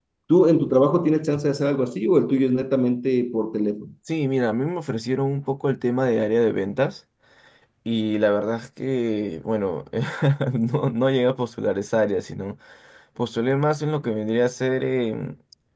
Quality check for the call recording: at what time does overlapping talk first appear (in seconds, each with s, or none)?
none